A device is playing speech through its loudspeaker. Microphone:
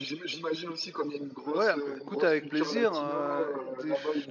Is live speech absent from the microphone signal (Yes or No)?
No